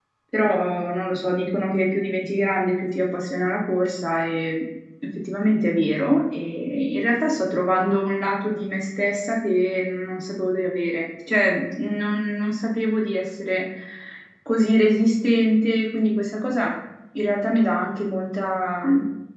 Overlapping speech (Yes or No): No